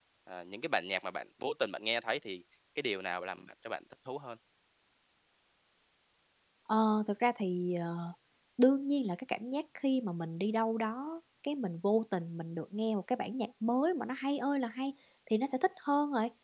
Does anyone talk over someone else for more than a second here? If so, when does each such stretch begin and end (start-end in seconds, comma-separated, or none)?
none